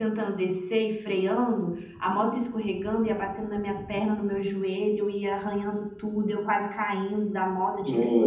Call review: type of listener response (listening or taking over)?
listening